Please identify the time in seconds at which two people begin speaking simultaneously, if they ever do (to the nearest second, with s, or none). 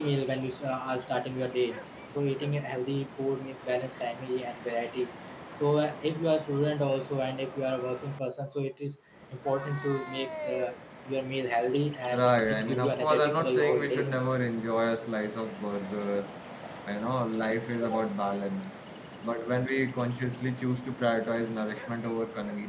12 s